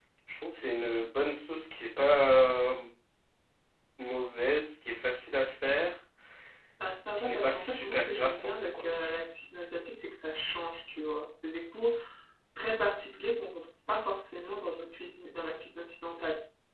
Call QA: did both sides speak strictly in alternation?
No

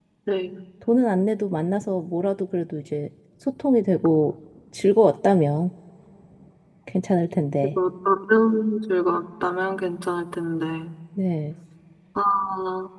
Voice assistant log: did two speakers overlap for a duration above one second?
No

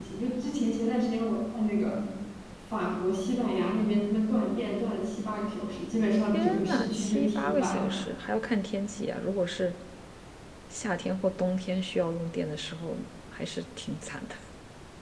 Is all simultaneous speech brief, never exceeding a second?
No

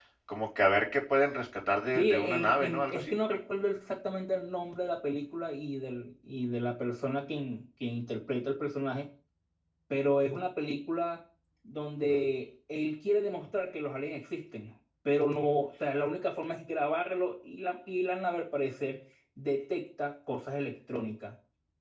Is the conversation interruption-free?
No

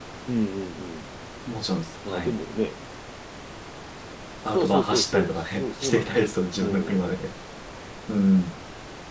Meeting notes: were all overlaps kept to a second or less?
No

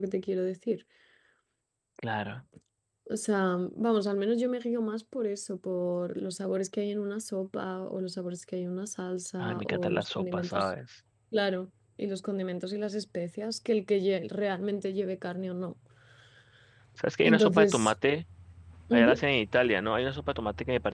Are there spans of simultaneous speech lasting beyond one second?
Yes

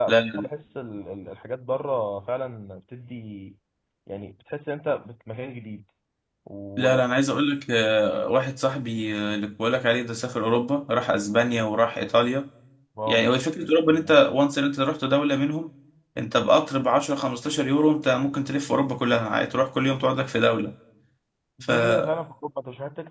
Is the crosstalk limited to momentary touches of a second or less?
Yes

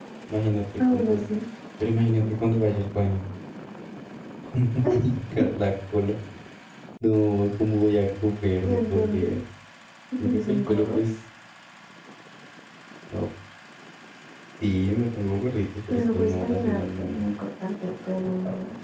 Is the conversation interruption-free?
No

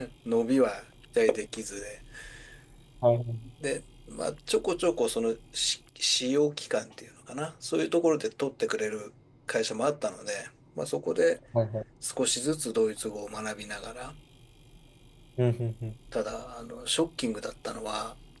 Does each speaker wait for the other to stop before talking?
Yes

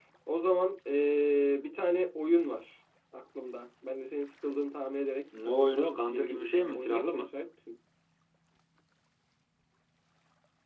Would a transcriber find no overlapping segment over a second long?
No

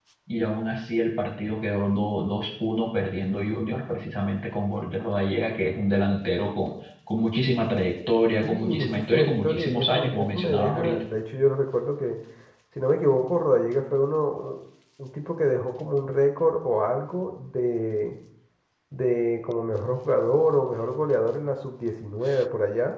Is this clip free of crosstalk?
No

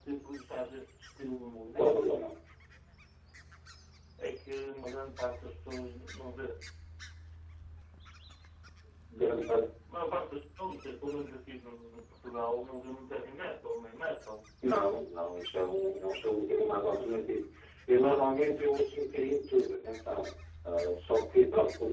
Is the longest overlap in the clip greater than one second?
No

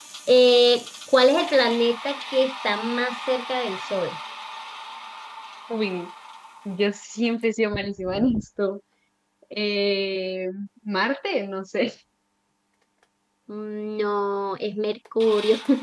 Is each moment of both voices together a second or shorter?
Yes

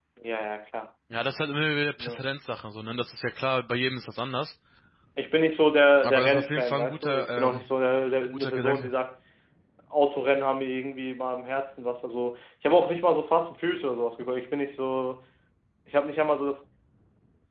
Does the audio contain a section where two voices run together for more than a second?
Yes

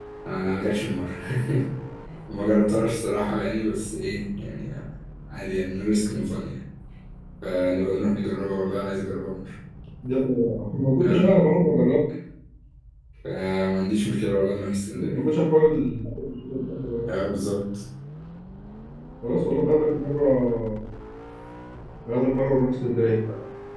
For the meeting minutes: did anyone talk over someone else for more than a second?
No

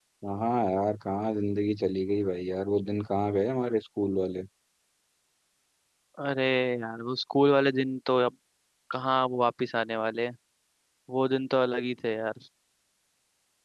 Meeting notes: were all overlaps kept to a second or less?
Yes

